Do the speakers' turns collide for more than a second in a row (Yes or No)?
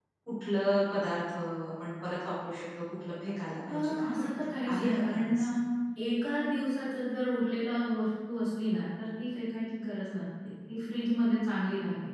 Yes